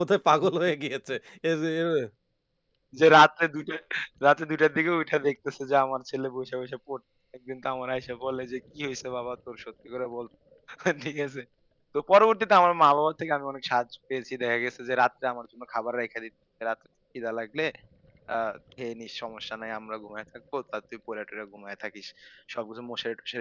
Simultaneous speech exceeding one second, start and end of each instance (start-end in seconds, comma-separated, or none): none